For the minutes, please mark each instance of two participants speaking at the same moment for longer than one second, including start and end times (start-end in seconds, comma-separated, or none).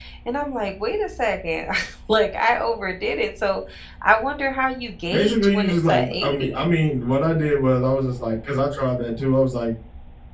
5.1-6.7